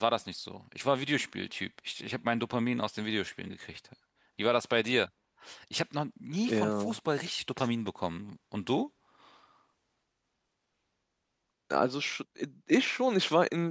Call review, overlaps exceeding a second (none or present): none